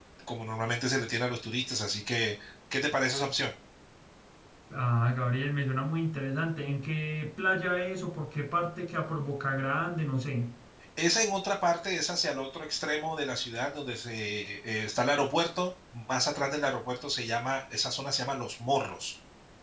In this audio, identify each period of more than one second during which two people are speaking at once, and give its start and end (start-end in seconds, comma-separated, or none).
none